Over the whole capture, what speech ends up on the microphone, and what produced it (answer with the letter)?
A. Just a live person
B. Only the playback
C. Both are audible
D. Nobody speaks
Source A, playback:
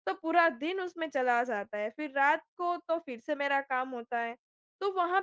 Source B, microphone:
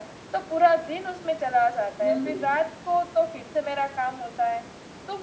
C